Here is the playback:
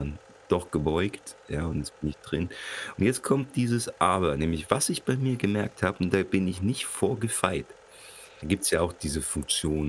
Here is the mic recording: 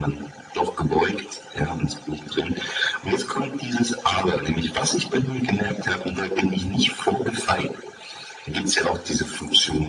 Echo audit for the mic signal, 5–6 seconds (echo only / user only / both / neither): echo only